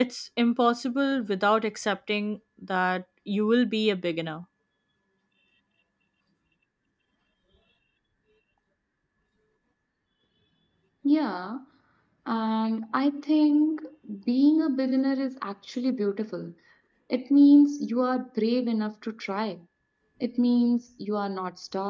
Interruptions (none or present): none